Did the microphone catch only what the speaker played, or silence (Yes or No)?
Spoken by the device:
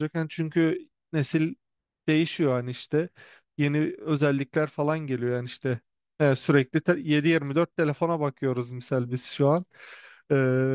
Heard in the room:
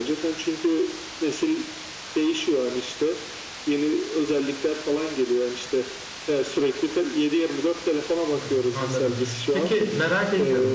No